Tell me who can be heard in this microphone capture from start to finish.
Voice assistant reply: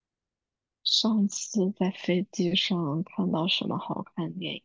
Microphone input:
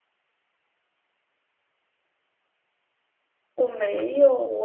user only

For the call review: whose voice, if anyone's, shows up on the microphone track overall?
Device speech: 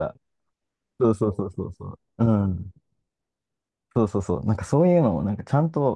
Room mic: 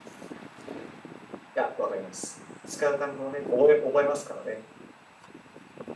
user only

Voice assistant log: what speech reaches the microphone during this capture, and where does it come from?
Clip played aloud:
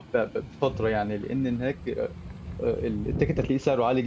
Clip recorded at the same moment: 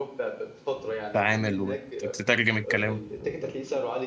both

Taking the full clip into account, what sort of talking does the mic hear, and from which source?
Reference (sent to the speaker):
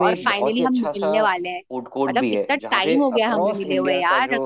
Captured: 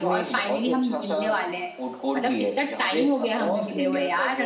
echo only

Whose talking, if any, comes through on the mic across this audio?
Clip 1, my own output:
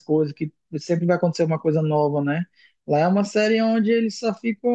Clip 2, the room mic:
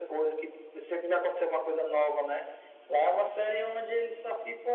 echo only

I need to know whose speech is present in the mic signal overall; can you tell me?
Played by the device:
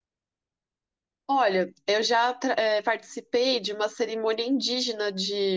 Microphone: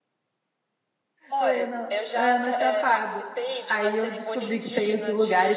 both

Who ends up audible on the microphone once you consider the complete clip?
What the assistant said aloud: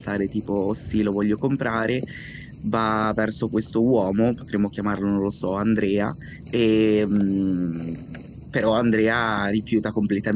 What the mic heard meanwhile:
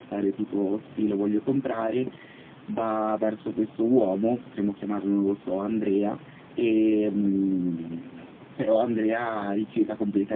echo only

